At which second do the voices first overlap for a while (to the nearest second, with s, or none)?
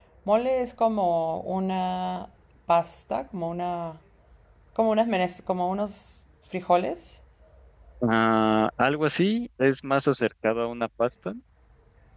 none